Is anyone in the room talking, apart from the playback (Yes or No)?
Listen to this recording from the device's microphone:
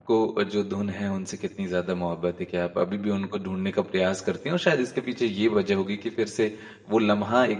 Yes